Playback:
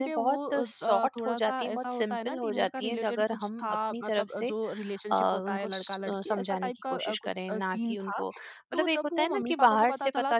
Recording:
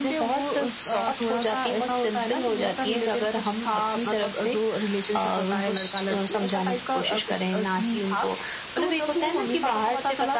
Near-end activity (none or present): none